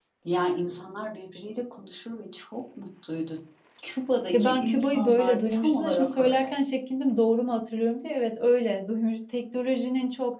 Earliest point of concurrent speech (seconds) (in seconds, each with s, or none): 4.3 s